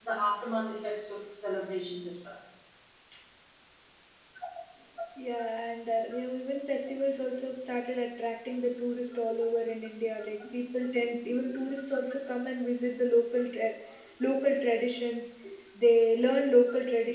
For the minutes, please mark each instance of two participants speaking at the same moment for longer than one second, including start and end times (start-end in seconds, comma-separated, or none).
none